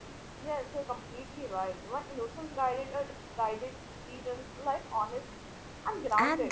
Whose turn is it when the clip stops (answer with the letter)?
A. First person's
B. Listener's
B